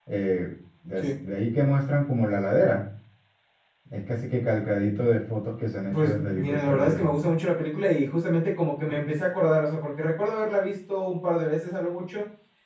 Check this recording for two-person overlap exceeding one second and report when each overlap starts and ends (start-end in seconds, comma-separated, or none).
5.9-7.1